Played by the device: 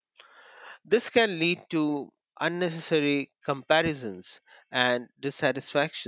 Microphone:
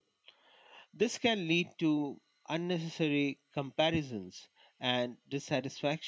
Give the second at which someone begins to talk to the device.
none

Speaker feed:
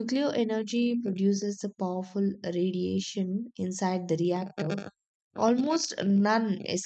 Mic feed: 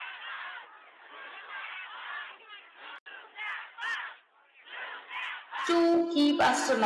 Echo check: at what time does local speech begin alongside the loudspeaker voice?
5.6 s

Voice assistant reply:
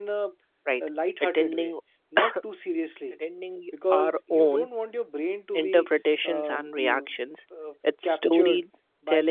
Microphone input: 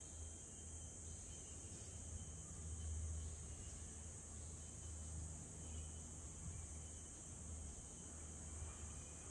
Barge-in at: none

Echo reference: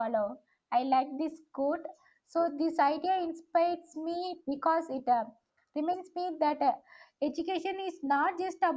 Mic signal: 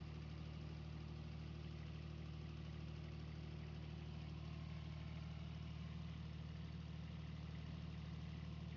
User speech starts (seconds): none

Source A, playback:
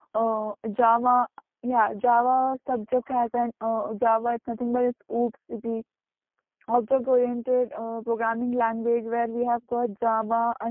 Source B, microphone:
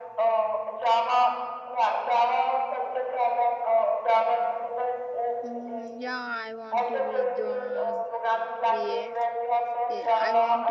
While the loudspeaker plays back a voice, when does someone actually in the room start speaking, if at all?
5.4 s

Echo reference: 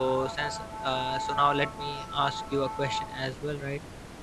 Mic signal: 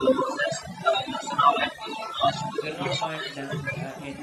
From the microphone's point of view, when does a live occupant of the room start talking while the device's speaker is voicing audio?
2.6 s

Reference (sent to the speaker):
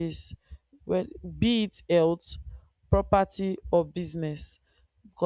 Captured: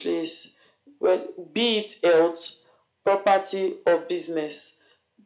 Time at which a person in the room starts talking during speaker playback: none

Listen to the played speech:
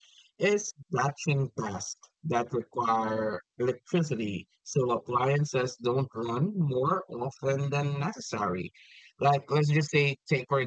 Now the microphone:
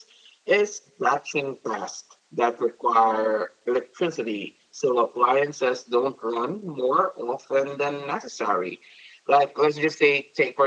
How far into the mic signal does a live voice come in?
none

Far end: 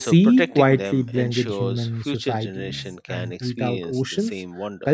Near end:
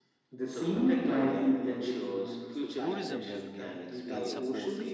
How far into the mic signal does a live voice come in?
2.8 s

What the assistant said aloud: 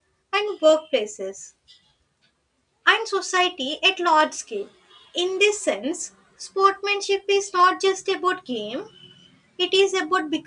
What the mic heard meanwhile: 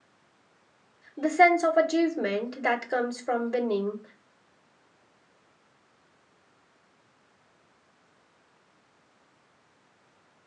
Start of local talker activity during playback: 1.2 s

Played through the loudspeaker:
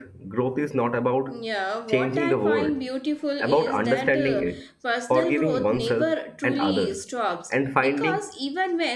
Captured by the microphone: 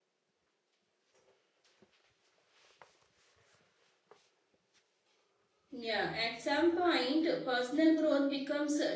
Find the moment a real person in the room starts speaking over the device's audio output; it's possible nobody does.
5.7 s

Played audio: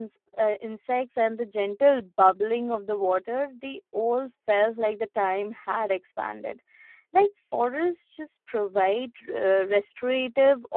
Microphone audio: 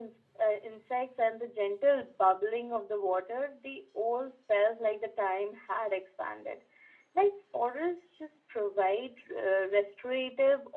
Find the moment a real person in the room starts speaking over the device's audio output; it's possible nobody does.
none

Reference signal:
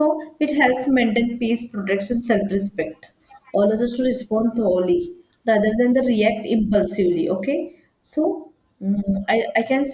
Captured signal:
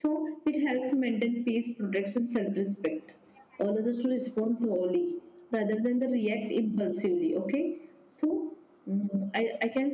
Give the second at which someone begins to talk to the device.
none

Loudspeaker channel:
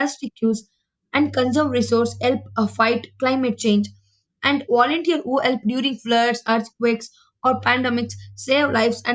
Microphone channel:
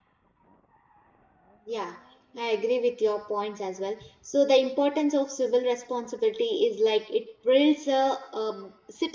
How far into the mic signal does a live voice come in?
1.7 s

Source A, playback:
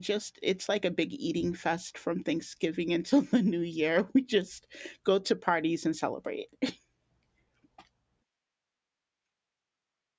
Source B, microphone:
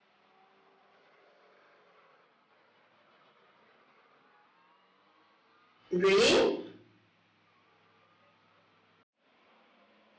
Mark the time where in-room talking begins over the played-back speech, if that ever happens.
5.9 s

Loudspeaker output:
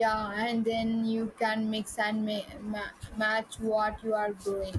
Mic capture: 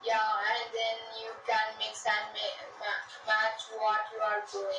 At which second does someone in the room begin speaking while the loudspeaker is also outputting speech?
none

